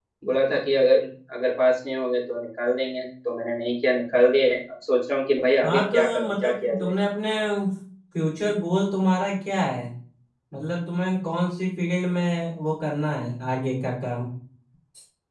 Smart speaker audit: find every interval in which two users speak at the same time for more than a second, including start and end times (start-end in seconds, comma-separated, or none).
5.6-6.9